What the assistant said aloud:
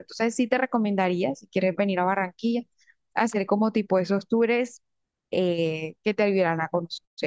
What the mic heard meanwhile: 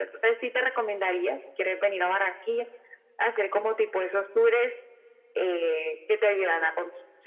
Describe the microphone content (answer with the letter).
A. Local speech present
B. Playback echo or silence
B